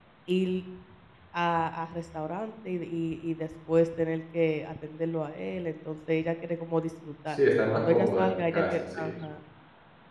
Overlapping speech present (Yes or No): Yes